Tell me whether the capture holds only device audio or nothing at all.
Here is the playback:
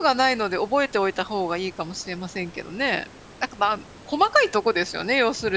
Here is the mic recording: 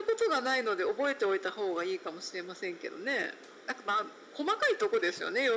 Yes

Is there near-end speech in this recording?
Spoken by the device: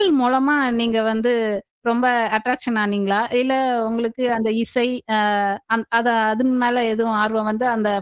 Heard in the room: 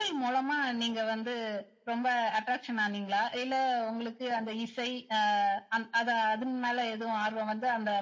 No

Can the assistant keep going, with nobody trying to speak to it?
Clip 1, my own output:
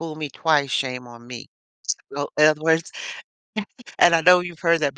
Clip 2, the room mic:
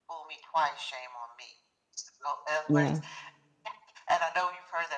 No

